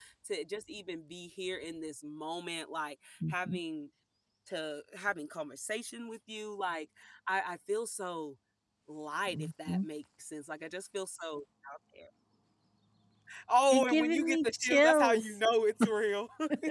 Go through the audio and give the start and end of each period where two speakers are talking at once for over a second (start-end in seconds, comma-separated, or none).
13.7-15.4